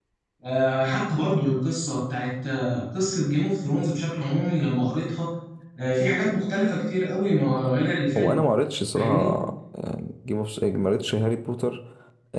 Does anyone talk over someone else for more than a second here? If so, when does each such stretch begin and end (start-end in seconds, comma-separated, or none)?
none